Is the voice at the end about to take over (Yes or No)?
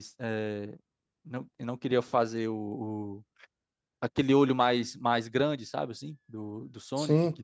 No